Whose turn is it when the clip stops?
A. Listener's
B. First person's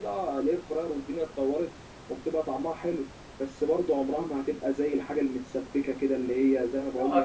A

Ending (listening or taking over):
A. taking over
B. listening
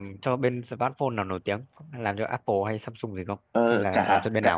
A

